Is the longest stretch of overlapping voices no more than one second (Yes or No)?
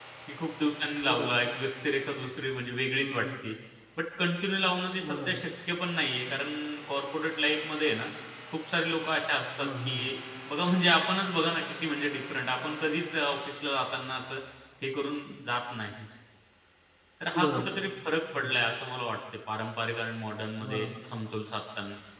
Yes